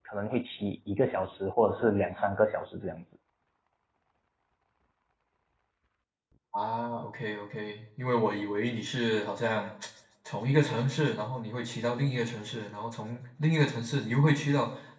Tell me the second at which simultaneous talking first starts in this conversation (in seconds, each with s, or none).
none